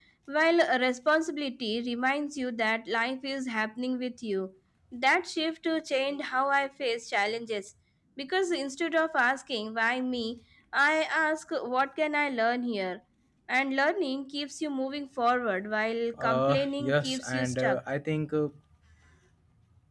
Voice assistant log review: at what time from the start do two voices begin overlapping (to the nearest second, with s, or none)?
16 s